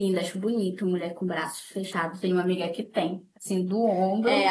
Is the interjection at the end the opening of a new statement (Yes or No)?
Yes